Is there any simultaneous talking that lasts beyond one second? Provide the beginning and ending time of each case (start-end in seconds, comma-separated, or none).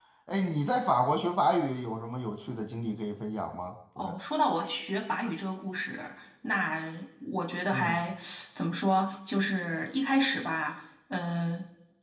none